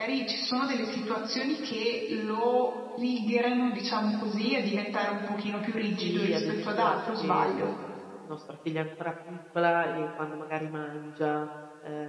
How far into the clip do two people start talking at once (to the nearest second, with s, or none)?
6 s